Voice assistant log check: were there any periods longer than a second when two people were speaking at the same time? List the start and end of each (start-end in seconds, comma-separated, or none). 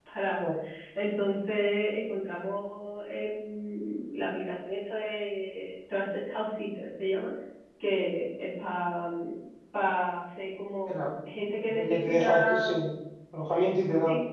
11.4-12.7